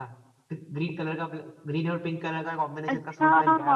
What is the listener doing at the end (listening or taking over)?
taking over